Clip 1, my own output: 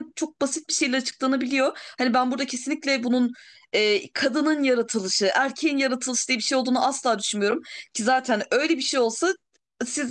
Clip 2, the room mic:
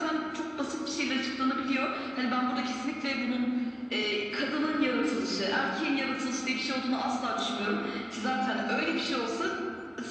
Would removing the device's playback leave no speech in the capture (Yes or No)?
Yes